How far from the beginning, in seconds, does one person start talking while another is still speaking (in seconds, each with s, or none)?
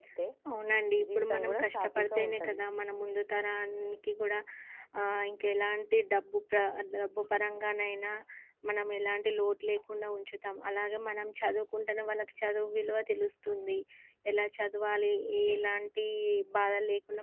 1.2 s